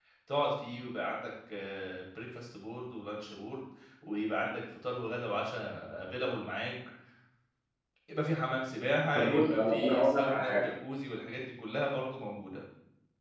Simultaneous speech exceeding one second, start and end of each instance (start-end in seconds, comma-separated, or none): 9.2-10.6